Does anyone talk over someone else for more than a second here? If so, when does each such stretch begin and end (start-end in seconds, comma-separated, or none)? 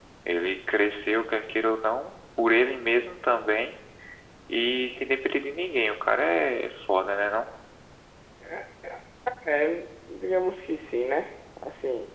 none